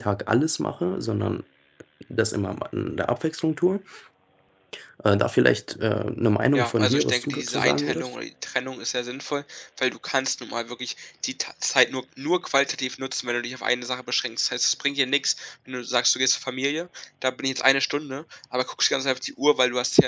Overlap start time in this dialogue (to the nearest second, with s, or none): 7 s